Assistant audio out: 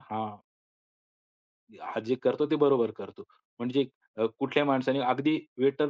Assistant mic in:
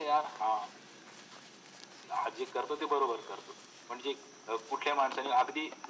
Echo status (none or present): present